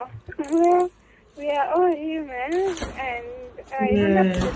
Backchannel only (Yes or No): Yes